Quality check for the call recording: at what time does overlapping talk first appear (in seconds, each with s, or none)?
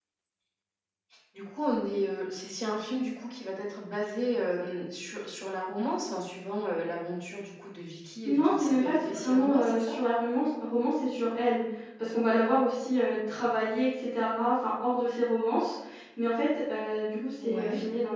8.2 s